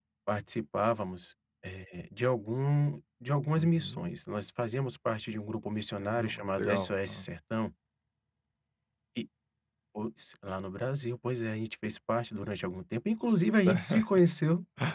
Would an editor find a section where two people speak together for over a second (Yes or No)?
Yes